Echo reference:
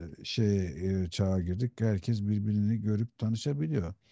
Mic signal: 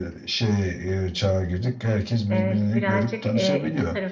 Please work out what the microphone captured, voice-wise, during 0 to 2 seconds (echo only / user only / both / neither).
echo only